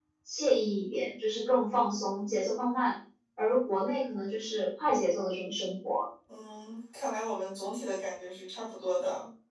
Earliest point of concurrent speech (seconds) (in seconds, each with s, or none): none